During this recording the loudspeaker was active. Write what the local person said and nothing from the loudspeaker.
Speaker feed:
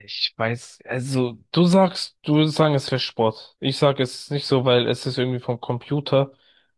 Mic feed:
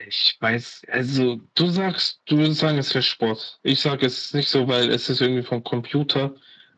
none

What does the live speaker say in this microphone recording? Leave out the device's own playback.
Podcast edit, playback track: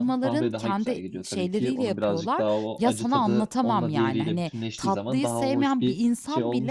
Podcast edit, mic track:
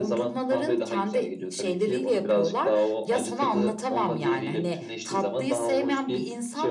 none

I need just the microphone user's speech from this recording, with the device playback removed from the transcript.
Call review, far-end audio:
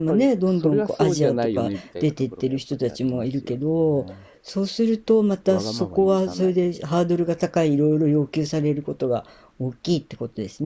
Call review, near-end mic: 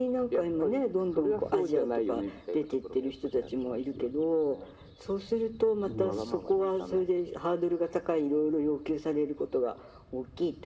うん。

